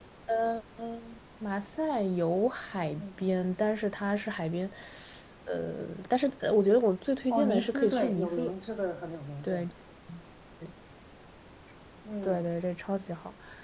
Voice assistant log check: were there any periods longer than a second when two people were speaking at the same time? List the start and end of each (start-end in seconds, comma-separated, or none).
7.3-8.5